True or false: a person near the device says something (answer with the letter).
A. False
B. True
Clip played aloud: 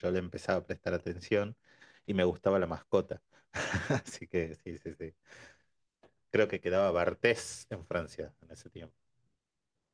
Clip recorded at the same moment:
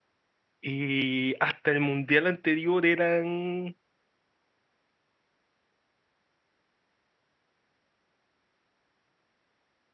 B